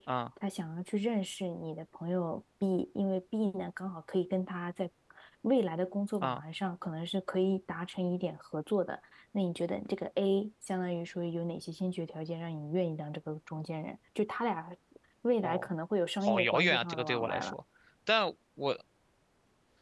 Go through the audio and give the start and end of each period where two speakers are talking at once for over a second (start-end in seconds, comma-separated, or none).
16.2-17.5